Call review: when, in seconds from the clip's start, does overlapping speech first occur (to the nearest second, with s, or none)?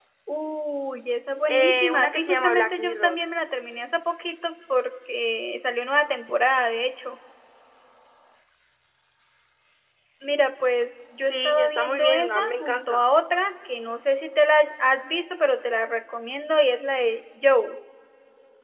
1 s